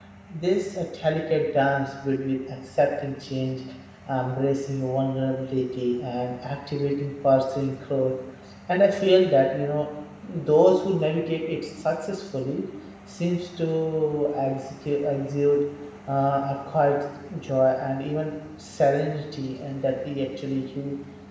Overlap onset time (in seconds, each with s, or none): none